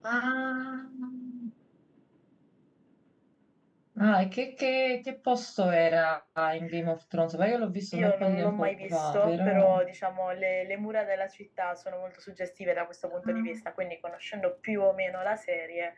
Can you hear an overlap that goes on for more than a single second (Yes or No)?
Yes